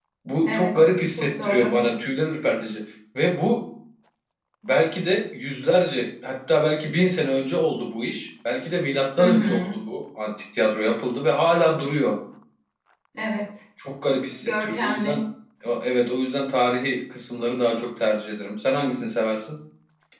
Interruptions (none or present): present